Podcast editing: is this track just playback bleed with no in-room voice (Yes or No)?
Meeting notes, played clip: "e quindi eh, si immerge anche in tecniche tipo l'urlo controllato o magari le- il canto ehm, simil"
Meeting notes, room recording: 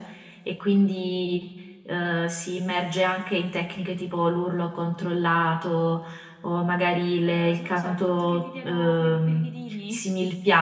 No